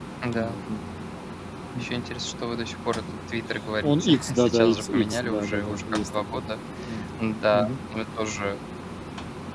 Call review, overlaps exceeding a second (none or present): present